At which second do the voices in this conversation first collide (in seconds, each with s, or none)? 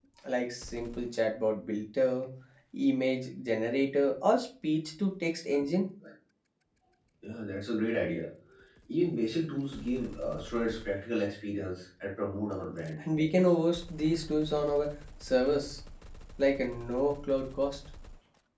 none